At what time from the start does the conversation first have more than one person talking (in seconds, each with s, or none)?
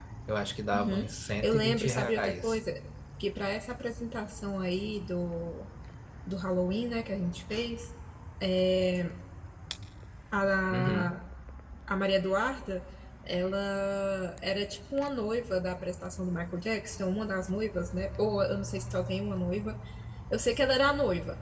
0.7 s